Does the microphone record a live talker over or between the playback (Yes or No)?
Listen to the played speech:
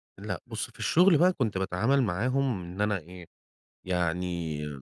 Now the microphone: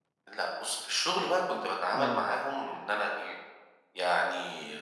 Yes